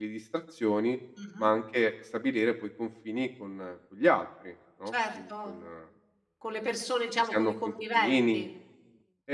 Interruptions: present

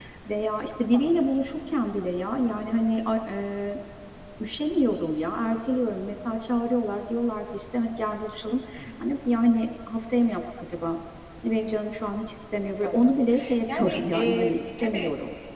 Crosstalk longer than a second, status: present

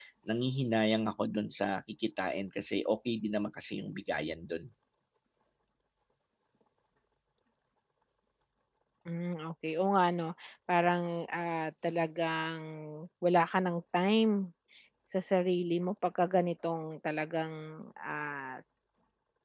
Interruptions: none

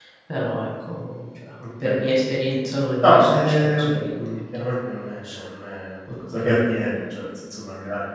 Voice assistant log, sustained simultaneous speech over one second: present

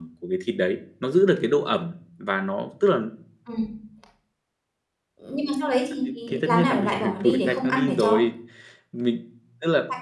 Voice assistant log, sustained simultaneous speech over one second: present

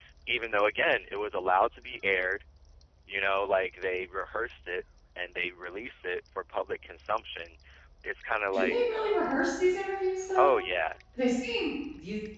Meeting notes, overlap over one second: none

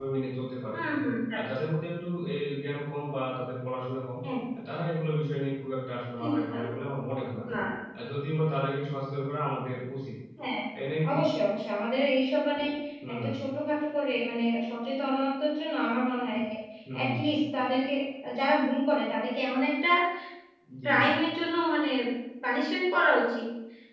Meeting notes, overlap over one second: none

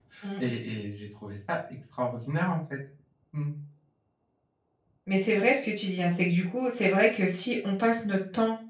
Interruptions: none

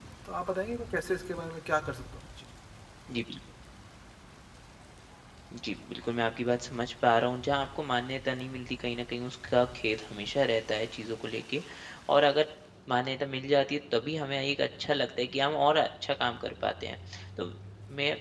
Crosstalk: none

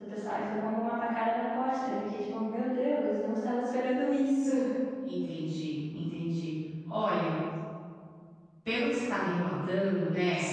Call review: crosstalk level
none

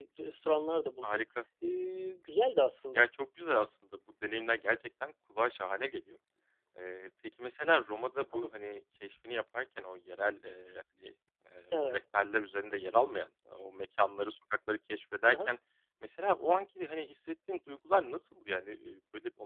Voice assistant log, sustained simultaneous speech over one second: none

